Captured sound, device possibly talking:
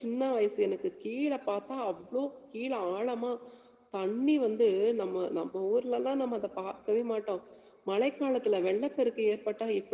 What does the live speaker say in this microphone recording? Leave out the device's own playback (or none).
none